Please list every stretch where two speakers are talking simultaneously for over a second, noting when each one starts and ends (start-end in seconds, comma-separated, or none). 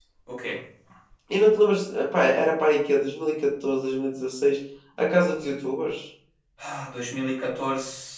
none